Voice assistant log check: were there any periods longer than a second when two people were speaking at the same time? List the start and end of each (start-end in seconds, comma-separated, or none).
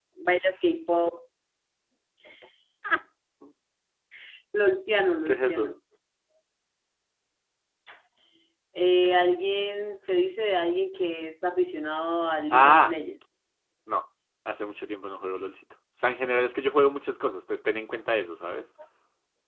none